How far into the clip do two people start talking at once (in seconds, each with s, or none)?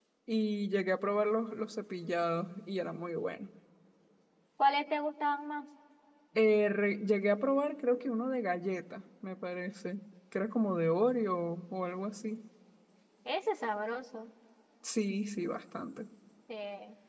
none